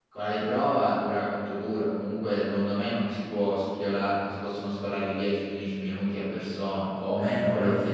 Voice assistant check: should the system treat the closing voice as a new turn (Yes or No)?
Yes